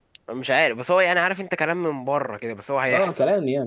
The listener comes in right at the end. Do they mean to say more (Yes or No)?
Yes